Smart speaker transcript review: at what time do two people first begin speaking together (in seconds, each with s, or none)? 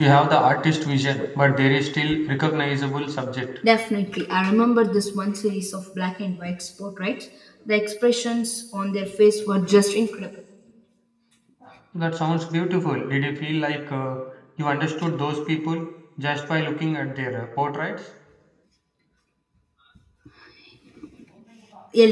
none